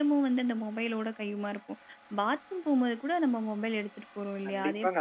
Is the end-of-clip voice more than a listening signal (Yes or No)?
Yes